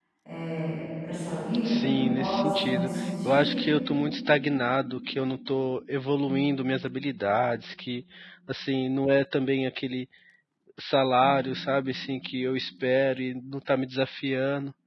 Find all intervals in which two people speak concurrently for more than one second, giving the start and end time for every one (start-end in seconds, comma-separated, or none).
1.6-3.6